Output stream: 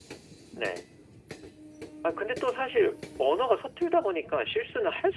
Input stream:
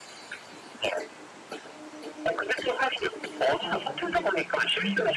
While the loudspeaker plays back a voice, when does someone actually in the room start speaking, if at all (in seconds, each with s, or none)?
3.6 s